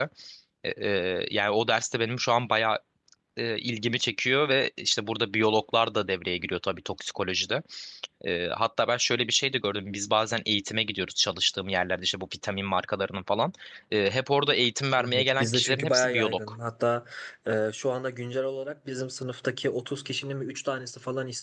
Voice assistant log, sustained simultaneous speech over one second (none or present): present